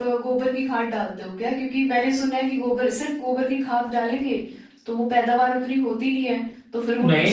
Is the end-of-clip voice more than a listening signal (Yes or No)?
Yes